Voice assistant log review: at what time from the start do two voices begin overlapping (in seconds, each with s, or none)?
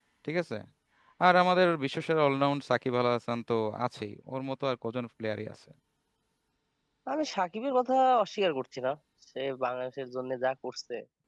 none